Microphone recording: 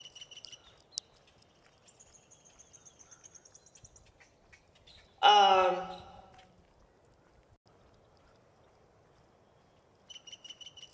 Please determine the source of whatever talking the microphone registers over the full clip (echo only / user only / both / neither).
user only